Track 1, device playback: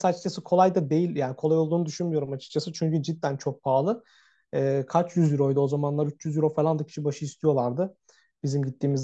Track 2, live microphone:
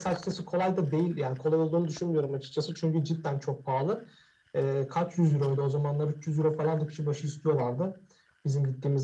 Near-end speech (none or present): none